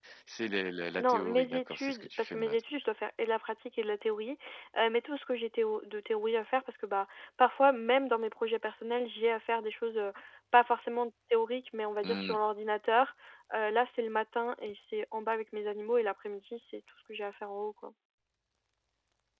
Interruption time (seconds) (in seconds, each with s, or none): 1.0 s